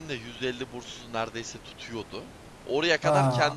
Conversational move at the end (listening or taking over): listening